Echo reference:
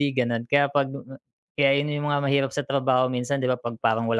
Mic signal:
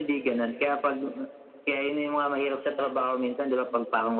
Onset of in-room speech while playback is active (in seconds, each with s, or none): none